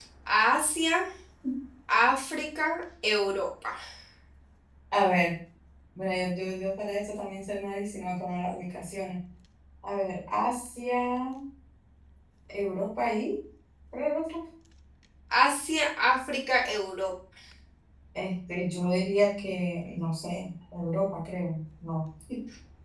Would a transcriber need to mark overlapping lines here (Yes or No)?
No